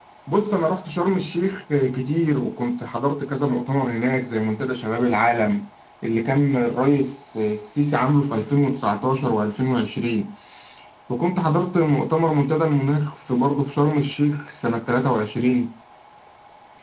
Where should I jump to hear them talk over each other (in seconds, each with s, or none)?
none